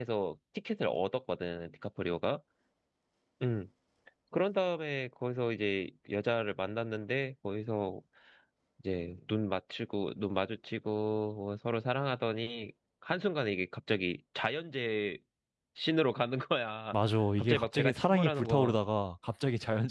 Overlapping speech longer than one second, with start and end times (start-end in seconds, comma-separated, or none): 17.4-18.8